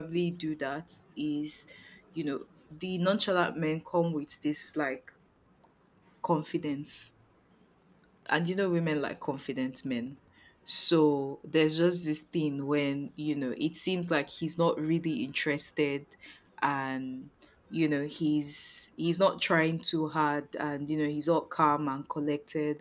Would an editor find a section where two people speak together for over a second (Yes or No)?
No